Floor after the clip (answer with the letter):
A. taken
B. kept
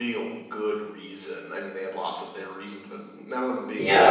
A